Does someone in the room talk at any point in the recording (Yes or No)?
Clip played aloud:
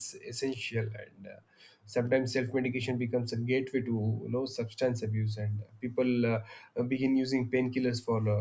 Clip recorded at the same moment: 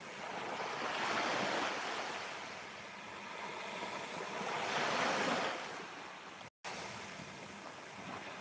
No